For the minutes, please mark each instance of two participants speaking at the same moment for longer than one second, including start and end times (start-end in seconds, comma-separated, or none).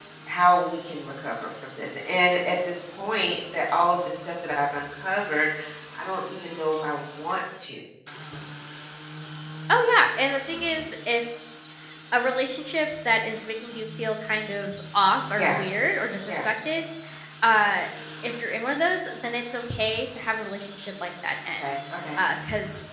none